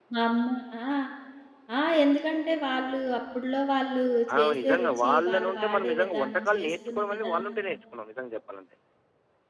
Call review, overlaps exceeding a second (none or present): present